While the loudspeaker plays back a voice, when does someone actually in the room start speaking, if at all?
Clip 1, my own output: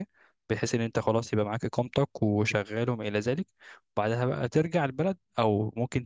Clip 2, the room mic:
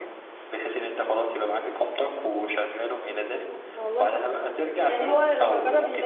3.2 s

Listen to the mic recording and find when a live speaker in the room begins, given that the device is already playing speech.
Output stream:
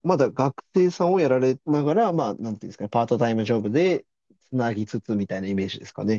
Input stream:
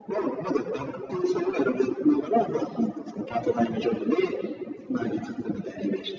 none

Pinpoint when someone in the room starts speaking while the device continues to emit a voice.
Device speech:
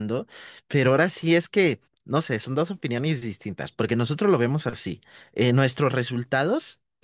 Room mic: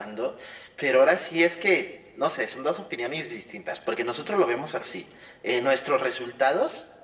none

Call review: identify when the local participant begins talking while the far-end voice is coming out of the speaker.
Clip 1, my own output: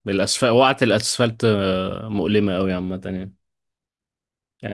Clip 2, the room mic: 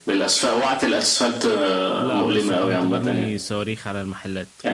2.0 s

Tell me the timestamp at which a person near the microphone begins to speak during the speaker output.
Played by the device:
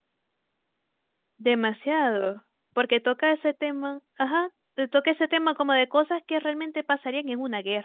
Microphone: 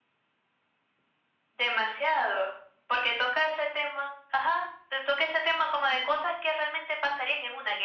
none

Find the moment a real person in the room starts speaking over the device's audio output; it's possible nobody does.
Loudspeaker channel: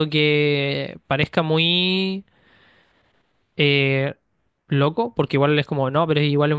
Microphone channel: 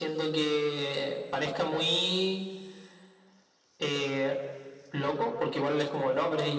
none

